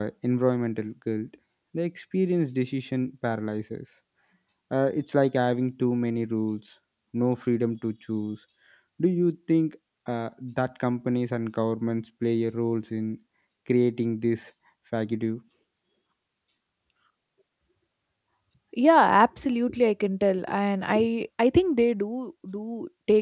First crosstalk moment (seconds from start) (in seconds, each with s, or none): none